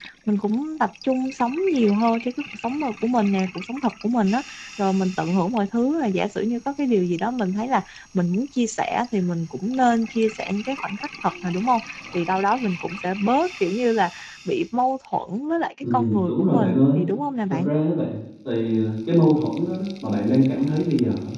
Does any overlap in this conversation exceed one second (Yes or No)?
Yes